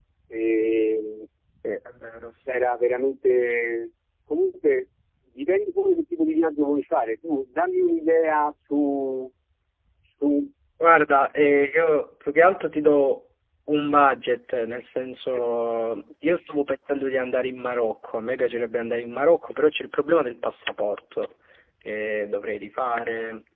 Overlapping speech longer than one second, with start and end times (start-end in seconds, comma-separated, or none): none